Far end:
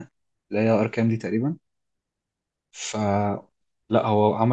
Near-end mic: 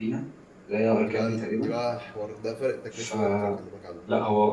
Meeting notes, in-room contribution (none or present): present